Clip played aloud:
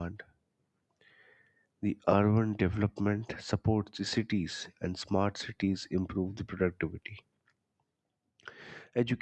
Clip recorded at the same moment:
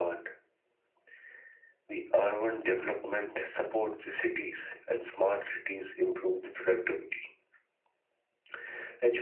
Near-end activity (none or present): none